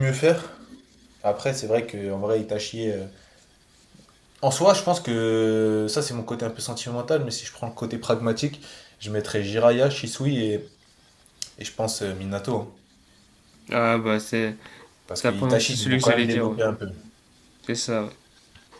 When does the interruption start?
15.2 s

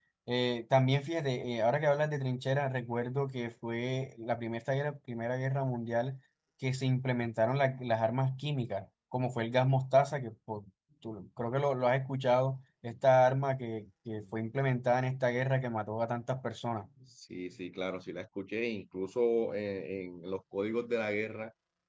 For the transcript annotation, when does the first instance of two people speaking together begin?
none

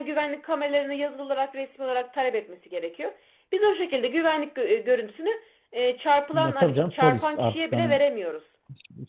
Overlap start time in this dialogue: 6.3 s

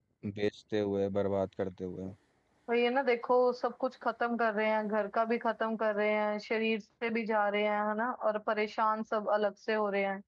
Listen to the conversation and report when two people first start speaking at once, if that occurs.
none

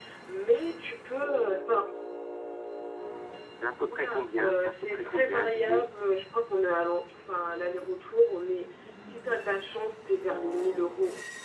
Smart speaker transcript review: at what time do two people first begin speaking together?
3.9 s

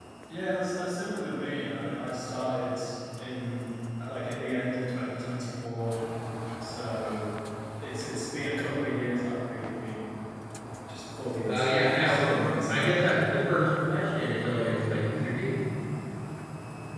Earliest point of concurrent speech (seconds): 11.4 s

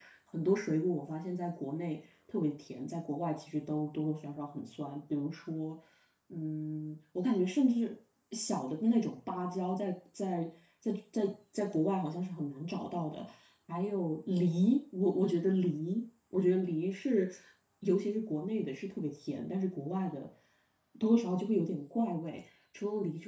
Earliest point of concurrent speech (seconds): none

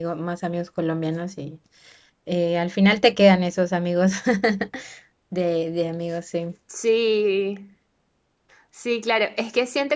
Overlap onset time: none

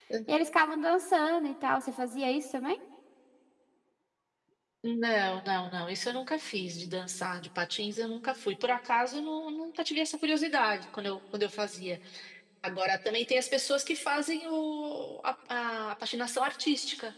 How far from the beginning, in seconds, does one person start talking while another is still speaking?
none

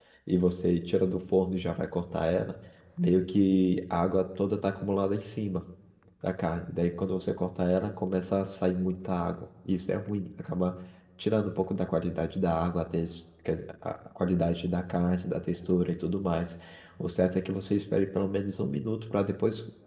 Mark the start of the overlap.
none

